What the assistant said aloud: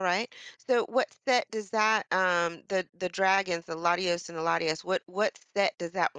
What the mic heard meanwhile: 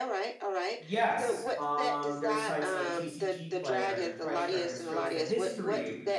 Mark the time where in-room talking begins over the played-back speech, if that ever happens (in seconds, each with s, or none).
0.8 s